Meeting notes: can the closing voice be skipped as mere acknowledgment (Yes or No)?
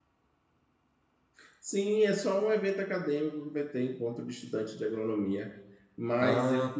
Yes